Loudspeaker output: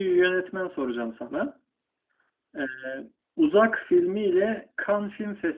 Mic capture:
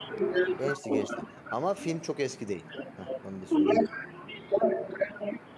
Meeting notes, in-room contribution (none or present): present